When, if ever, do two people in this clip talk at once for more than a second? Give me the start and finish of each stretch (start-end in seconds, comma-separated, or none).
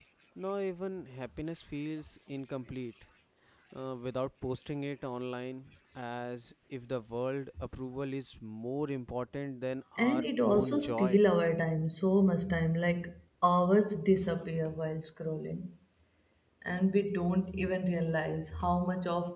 10.0-11.2